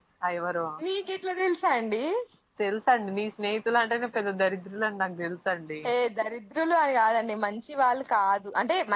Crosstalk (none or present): none